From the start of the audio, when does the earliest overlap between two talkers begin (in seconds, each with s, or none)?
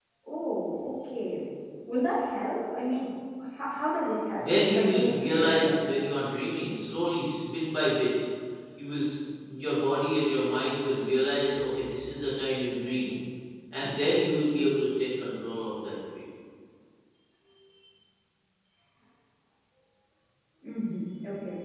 4.4 s